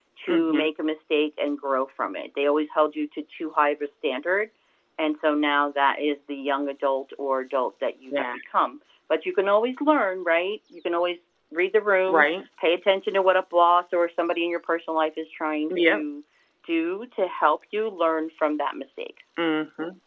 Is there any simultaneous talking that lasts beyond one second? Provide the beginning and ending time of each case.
none

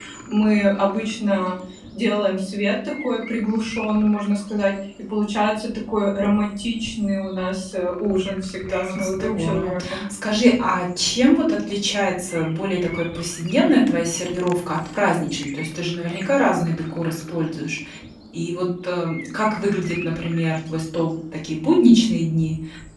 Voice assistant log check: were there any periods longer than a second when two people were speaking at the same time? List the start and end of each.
8.7-10.0

